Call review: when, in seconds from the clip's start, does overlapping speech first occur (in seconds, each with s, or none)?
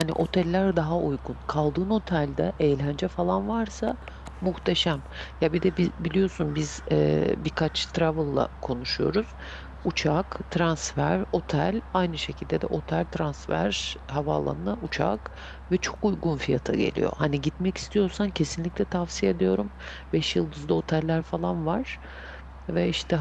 none